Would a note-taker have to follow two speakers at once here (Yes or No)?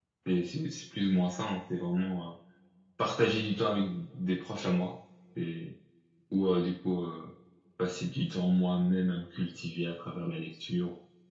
No